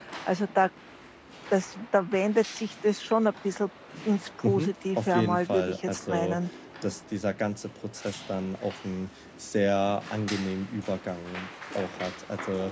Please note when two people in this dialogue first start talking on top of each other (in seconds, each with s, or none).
4.4 s